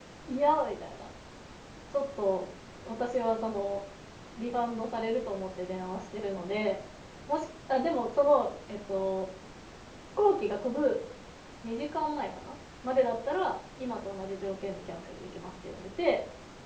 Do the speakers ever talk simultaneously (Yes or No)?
No